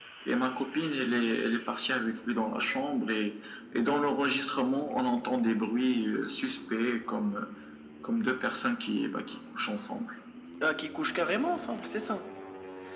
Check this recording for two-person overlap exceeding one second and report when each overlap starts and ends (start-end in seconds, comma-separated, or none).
none